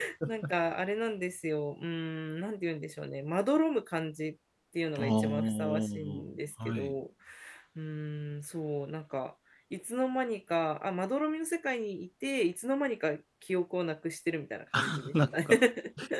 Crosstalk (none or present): present